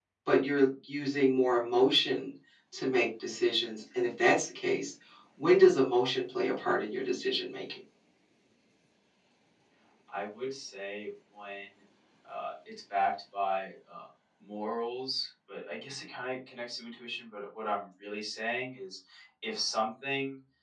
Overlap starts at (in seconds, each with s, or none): none